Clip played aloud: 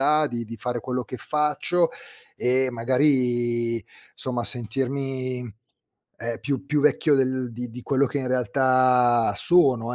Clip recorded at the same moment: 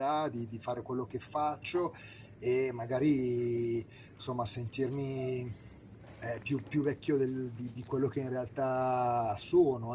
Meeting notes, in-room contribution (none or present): none